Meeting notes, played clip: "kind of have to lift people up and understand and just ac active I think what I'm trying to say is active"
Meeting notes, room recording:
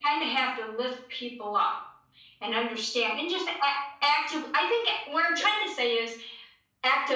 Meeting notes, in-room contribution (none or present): none